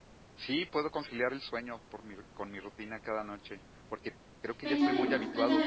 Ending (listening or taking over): taking over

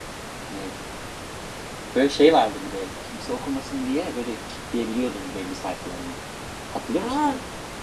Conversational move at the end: taking over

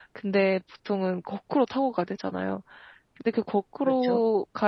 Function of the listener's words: listening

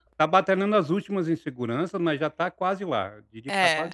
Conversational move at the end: taking over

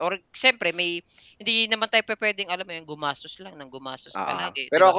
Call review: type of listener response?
taking over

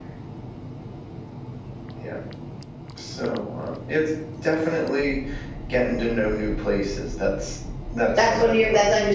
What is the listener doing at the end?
taking over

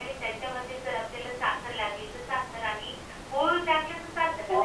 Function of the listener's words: taking over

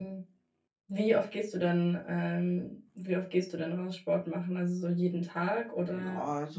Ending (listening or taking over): taking over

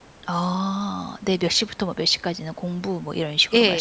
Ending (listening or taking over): taking over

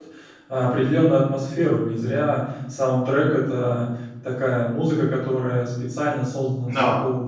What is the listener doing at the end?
listening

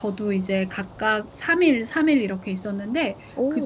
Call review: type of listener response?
listening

